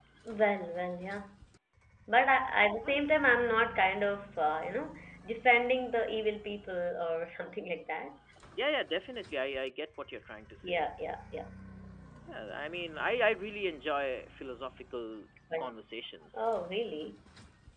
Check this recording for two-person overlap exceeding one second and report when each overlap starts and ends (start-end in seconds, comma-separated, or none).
none